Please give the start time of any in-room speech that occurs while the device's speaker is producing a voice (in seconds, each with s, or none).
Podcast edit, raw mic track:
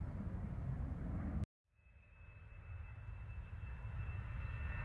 none